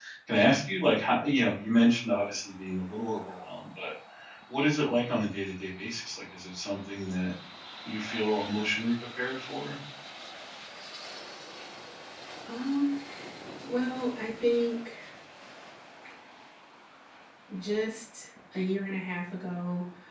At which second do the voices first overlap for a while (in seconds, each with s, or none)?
none